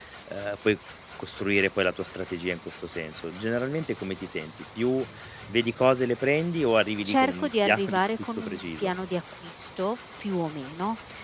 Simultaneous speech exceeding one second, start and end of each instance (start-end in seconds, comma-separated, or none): 7.0-8.9